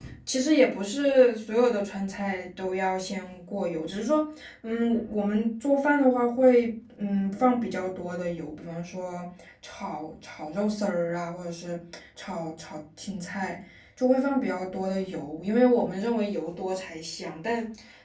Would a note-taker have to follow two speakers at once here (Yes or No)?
No